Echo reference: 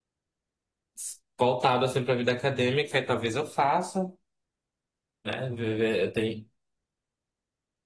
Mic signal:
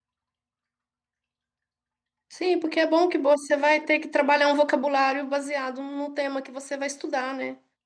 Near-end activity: present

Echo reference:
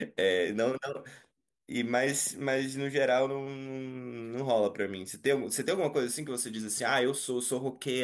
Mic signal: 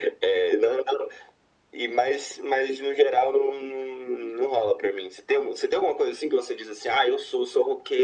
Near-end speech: none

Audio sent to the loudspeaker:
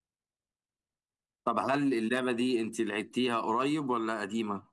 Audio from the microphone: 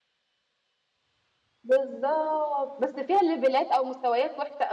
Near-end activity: present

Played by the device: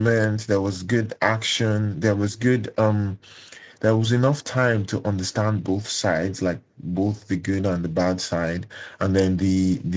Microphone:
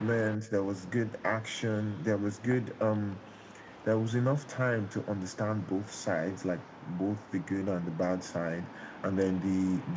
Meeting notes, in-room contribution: none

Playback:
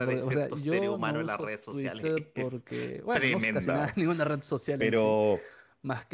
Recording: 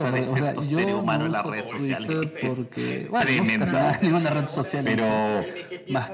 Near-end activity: present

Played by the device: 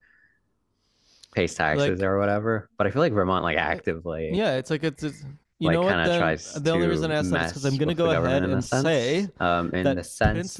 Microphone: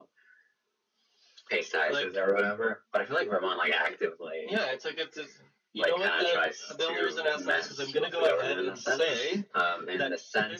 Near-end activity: none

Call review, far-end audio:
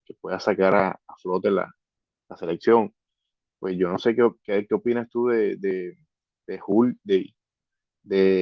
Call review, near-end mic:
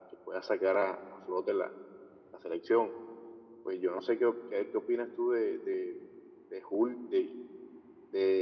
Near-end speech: none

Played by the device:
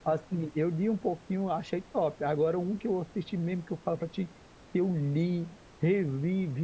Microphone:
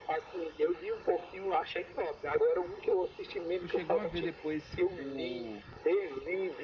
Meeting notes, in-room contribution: present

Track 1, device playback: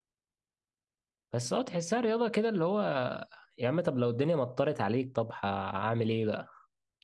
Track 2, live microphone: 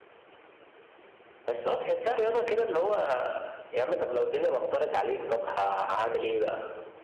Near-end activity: none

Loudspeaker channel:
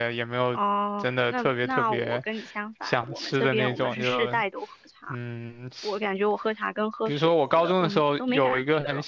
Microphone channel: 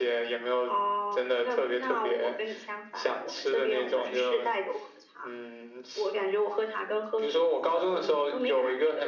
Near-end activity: none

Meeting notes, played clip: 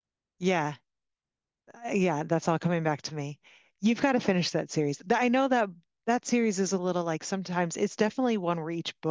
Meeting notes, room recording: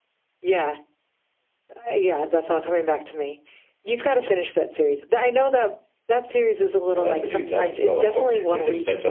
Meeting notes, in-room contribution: present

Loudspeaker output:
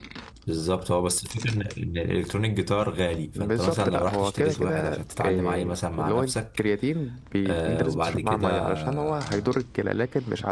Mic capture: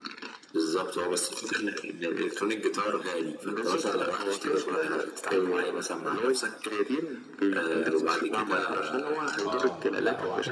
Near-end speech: present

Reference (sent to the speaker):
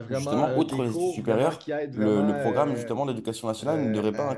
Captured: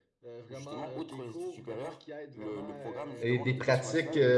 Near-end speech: present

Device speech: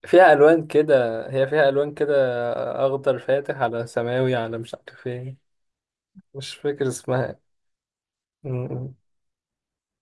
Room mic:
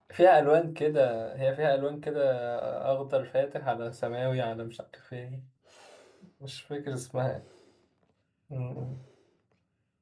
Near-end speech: none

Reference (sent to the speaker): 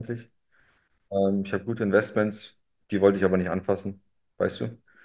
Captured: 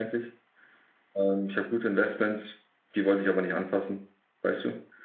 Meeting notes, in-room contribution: none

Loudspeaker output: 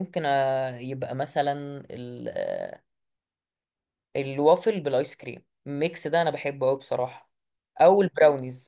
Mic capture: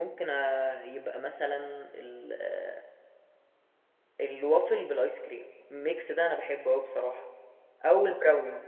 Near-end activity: none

